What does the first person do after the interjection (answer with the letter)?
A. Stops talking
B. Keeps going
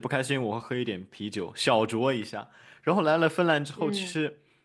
B